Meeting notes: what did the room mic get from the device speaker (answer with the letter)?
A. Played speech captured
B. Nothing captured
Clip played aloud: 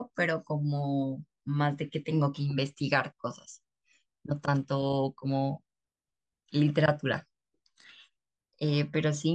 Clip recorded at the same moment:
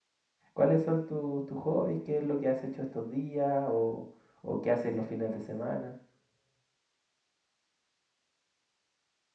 B